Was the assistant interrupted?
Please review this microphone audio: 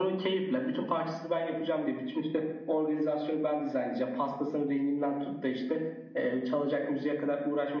No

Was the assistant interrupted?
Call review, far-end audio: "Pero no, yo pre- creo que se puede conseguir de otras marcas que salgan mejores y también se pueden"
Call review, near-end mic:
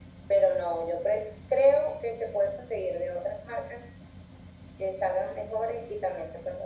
No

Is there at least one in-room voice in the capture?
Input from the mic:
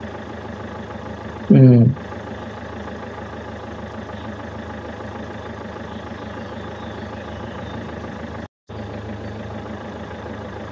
Yes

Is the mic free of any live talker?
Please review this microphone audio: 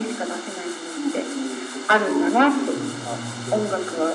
No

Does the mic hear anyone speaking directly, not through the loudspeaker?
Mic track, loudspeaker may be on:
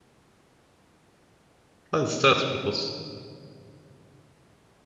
Yes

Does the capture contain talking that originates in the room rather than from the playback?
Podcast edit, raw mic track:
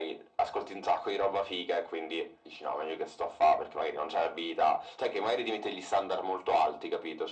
No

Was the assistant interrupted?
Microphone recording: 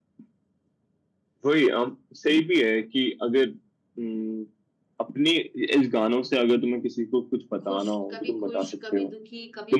Yes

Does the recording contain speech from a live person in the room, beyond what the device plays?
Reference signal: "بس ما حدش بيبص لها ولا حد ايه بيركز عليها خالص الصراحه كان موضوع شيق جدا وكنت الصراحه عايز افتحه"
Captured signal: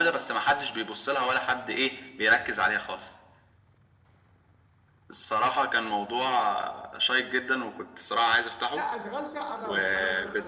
Yes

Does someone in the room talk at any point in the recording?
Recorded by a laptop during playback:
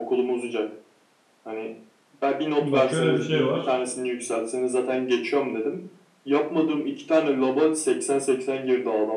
Yes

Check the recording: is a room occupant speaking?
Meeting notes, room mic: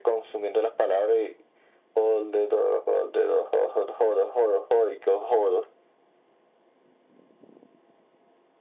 No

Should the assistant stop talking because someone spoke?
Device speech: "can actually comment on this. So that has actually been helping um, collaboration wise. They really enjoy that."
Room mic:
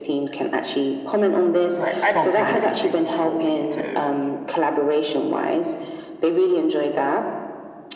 Yes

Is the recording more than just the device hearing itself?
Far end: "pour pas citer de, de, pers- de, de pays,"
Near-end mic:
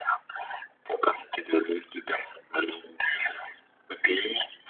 No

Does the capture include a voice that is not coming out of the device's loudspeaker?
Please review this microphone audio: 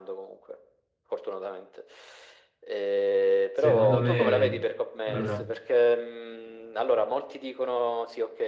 Yes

